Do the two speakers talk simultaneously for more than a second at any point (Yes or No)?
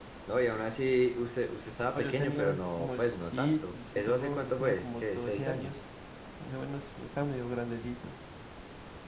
Yes